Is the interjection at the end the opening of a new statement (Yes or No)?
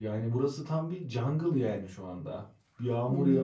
No